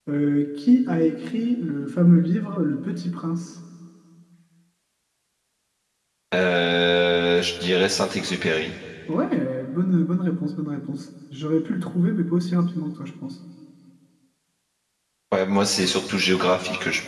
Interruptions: none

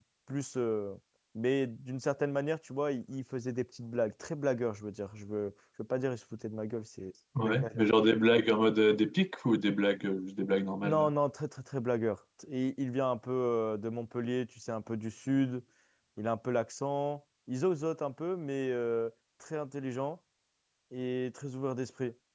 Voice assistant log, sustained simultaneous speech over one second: none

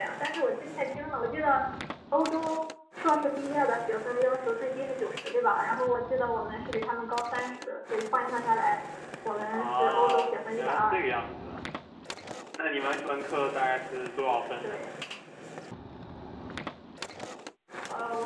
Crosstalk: present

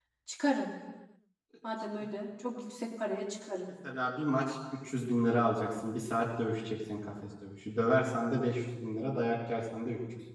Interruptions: none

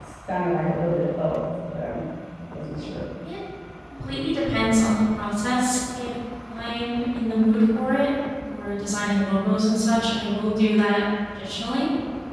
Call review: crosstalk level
none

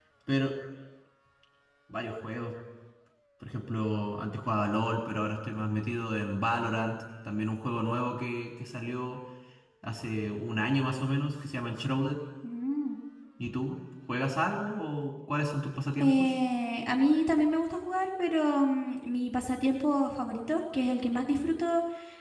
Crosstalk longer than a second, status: none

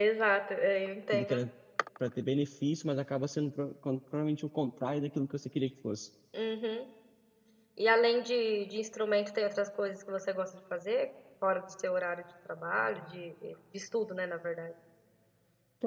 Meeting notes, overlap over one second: none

